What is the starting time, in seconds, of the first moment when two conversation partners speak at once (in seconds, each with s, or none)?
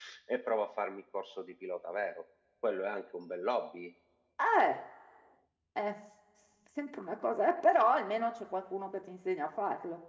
none